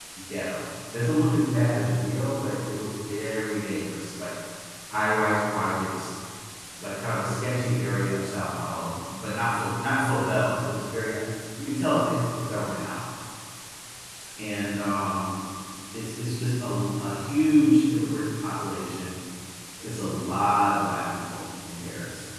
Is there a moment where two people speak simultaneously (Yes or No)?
No